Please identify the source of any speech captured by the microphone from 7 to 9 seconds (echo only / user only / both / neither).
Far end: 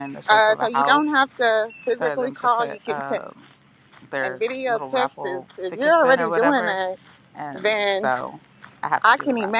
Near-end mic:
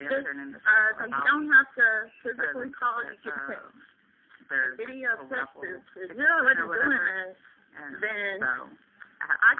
echo only